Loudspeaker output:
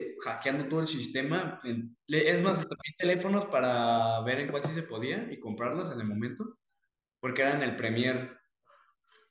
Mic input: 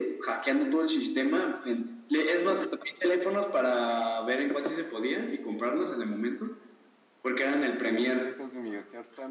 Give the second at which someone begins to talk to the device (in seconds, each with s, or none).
7.8 s